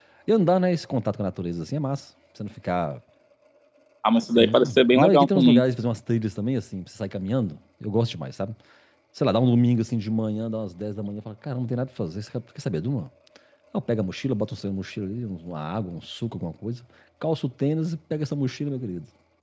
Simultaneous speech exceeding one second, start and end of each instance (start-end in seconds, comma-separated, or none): 4.4-5.6